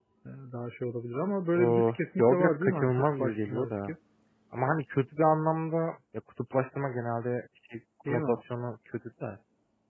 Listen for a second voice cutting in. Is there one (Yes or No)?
Yes